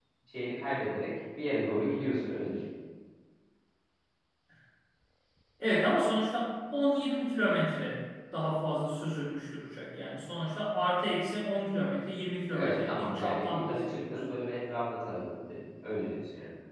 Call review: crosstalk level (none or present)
present